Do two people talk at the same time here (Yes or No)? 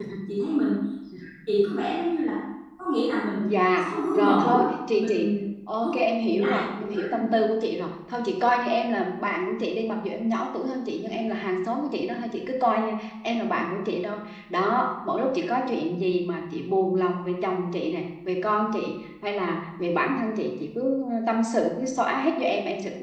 Yes